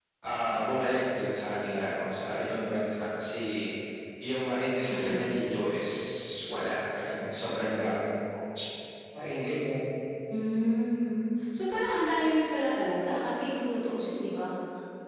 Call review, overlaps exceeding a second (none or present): none